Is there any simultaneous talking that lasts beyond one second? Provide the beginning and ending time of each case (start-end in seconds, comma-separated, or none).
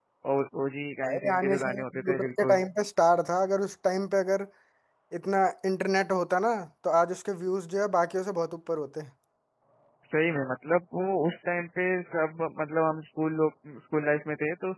1.0-2.6